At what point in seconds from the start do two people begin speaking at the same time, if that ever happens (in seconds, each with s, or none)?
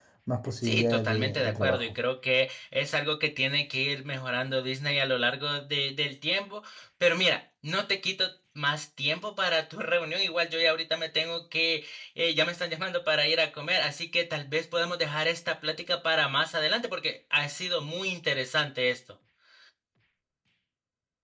0.6 s